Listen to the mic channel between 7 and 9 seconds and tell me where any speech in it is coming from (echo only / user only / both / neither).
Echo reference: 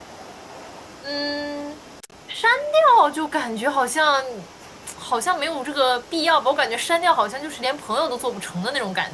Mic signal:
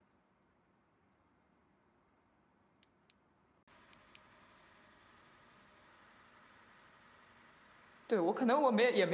user only